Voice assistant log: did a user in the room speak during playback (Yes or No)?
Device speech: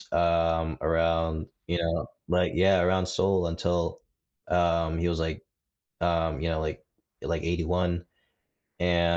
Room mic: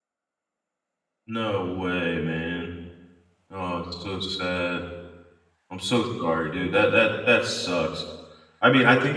Yes